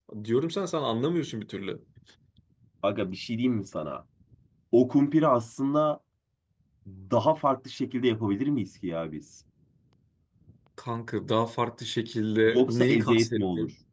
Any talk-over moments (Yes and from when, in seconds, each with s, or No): Yes, from 12.5 s